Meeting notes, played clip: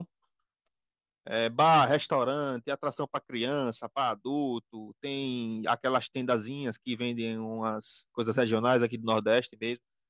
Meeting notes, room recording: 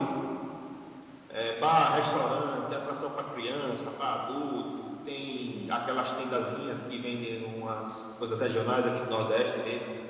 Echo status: present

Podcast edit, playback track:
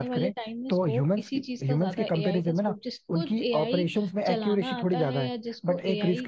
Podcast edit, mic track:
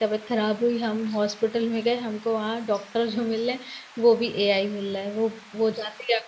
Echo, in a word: none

